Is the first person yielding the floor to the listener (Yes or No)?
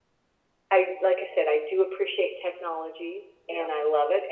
No